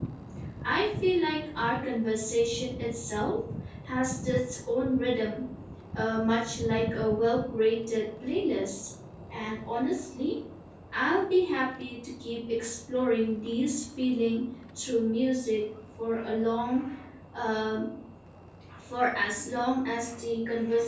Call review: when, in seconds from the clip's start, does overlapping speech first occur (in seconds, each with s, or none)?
none